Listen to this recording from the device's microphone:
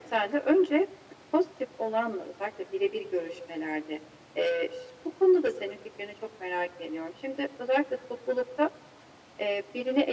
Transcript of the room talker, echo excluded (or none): none